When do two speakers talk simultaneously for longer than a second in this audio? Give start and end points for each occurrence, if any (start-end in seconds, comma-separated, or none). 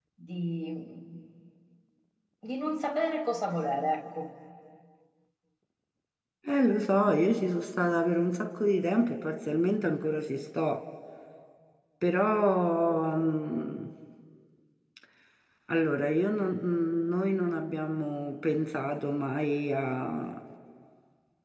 none